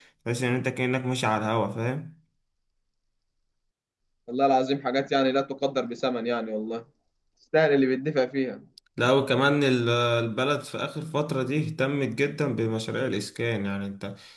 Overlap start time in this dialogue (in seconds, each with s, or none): none